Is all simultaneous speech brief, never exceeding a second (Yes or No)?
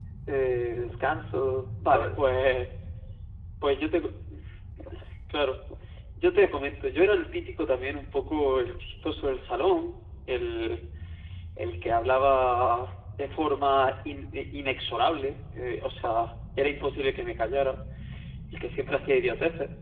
Yes